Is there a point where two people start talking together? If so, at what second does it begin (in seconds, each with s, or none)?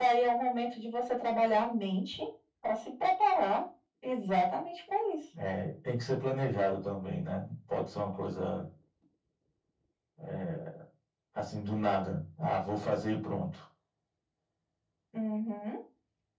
none